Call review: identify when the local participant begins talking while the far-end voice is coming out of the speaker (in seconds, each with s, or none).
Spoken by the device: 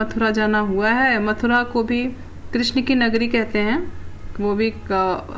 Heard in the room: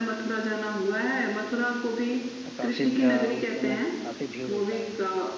2.5 s